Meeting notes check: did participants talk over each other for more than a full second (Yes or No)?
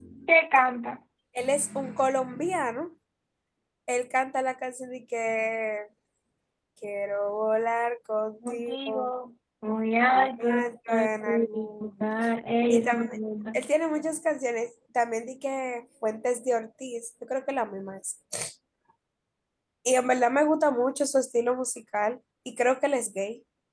Yes